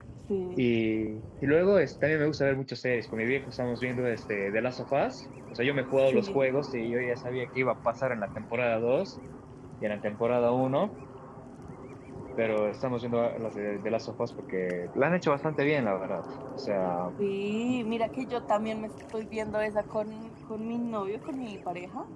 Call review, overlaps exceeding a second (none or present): none